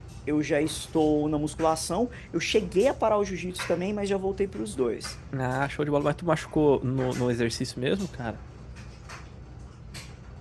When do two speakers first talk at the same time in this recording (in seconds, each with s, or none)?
none